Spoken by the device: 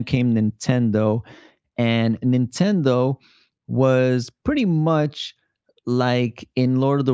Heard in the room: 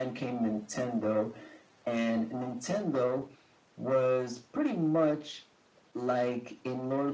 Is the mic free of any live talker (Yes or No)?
Yes